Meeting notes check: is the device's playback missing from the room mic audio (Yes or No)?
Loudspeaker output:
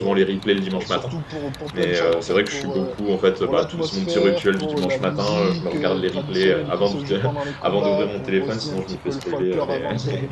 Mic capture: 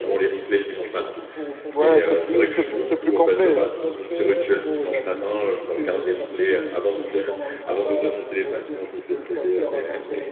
No